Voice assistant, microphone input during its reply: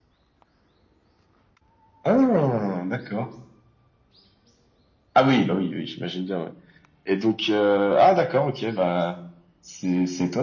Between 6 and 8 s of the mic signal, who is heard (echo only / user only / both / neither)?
echo only